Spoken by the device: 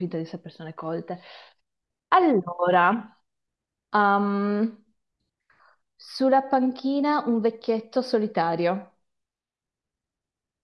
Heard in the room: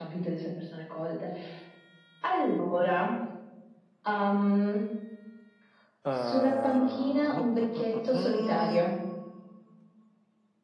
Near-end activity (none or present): present